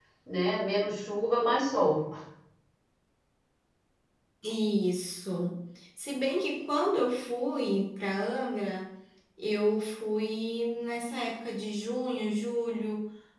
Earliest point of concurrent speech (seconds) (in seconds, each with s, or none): none